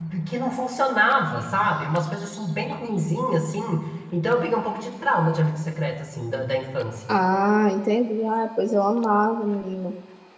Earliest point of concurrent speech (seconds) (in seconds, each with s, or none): none